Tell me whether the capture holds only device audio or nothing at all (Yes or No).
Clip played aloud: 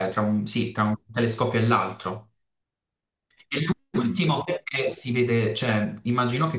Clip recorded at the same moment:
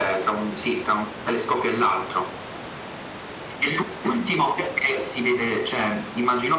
Yes